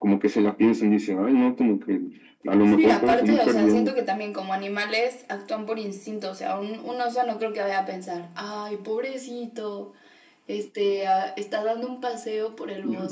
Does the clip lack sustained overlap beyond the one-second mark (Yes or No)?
No